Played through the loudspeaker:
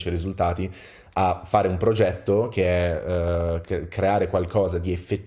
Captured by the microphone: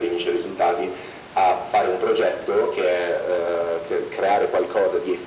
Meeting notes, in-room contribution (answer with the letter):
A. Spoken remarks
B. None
B